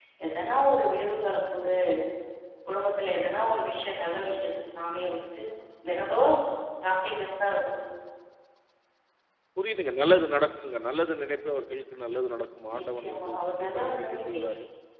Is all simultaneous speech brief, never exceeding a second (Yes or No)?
No